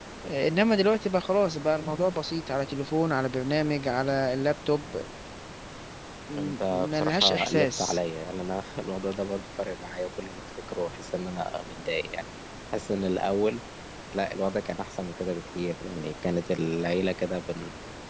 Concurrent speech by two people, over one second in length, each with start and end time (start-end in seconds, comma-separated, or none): 6.4-8.0